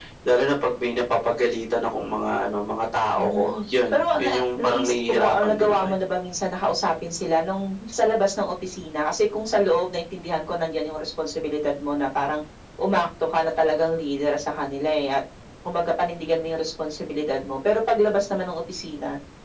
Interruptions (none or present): present